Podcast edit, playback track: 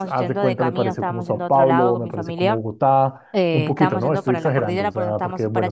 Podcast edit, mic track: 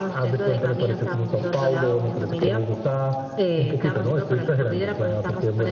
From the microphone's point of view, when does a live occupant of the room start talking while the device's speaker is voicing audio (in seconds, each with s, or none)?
none